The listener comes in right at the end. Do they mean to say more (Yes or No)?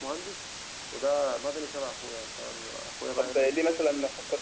Yes